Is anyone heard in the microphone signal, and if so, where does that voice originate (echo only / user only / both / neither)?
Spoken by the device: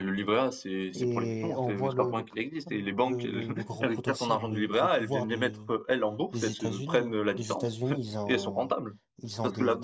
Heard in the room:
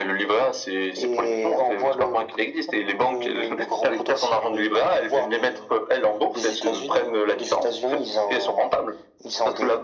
echo only